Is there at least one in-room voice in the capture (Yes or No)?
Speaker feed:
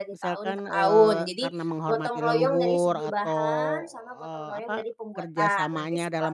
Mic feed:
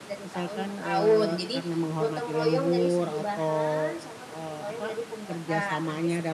No